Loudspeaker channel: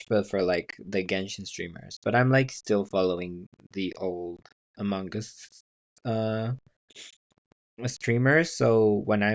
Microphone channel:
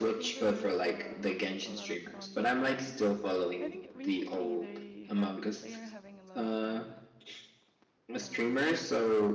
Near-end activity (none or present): present